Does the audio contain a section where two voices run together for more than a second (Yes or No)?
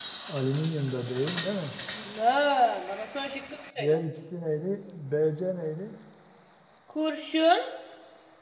No